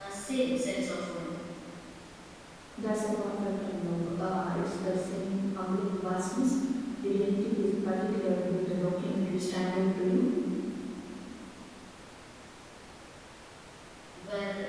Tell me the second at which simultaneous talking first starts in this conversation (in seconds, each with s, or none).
none